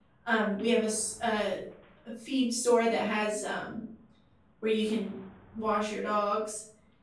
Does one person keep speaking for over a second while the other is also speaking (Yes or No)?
No